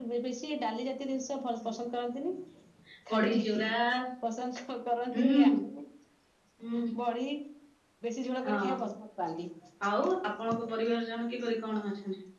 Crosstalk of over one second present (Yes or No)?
No